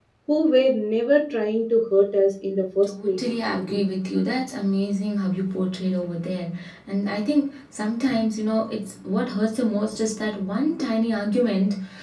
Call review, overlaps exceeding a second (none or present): none